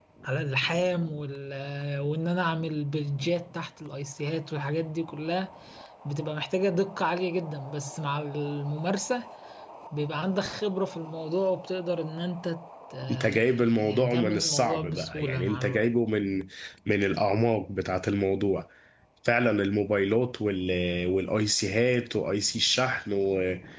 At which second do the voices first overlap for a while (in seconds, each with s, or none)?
13.0 s